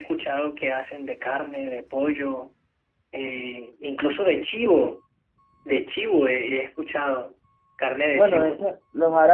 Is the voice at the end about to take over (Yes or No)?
Yes